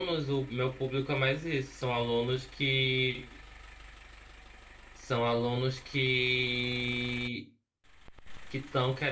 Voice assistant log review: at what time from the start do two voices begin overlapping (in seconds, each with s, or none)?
none